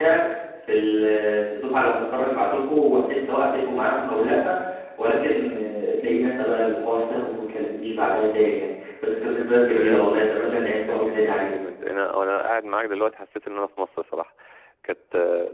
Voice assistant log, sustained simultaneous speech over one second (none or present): present